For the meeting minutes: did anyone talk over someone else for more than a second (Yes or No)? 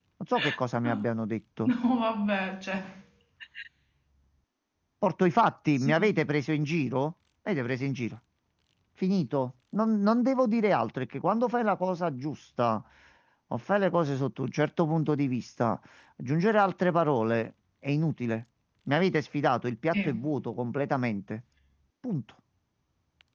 No